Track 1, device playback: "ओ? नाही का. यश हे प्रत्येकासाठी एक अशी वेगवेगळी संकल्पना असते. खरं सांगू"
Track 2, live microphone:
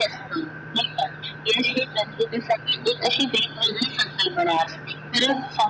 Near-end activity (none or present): none